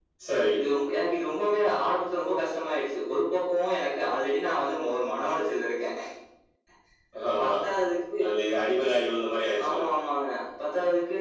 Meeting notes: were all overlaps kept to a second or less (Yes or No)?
Yes